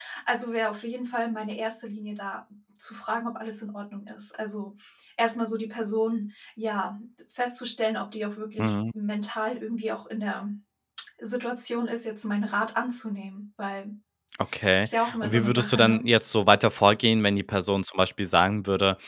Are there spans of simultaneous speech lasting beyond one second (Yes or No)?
Yes